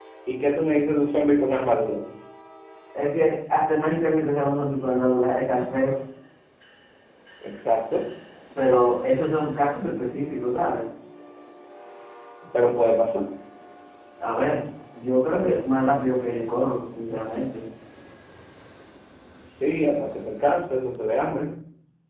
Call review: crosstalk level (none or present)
none